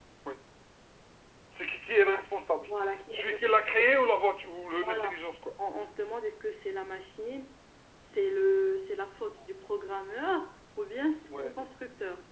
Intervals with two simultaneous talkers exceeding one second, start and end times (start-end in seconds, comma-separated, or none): none